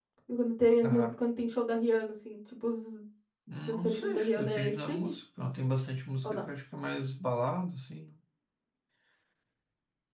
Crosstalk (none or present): present